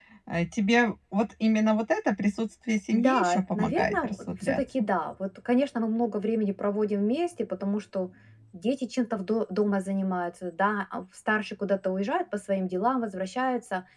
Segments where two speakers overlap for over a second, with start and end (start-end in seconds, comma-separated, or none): 2.9-4.6